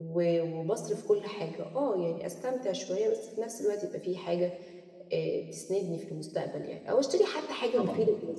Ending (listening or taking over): listening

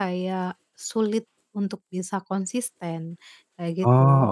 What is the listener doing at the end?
listening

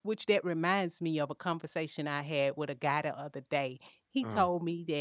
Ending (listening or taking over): listening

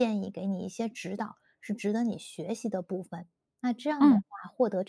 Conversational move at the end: listening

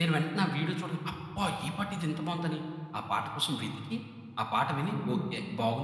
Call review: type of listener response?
listening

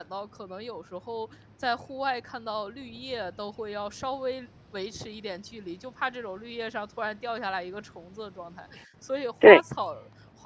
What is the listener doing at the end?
listening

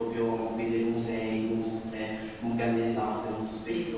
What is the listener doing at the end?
taking over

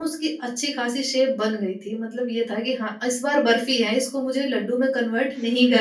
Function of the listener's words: taking over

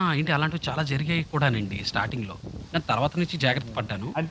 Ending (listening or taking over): taking over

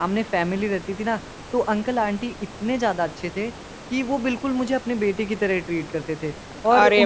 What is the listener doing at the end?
listening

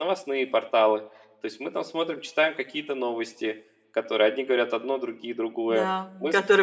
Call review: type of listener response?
taking over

